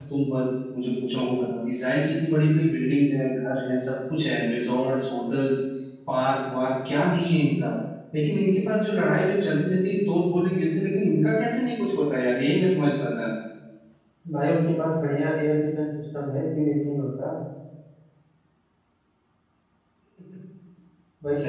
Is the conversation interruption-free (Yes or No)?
Yes